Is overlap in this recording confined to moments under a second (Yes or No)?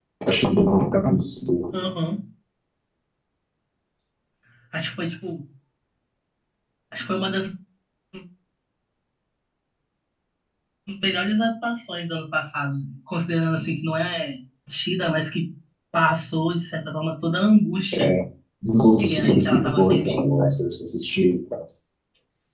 No